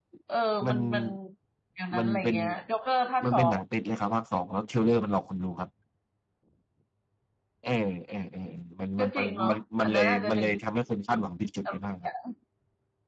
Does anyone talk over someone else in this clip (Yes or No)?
Yes